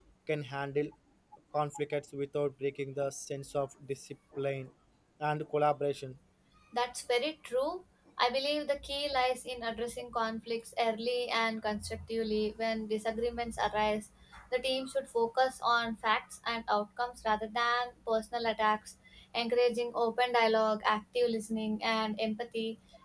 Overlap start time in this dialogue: none

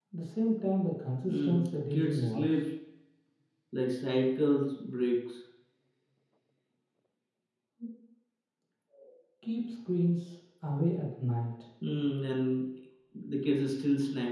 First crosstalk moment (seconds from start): 1.3 s

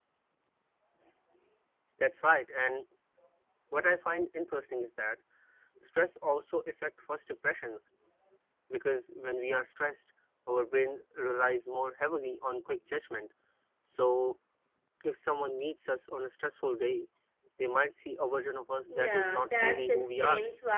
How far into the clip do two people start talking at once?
18.9 s

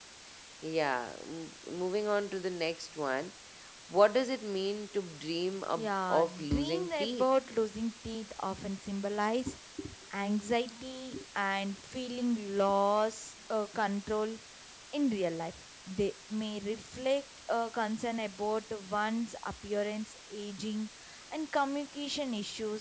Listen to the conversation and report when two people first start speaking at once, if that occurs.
5.8 s

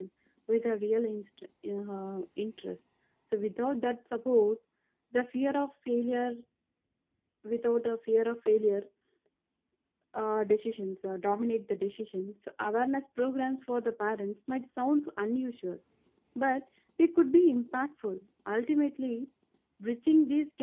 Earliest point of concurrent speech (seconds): none

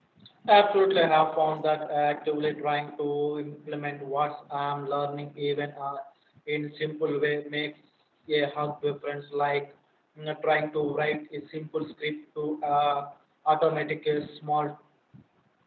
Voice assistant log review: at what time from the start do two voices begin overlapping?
none

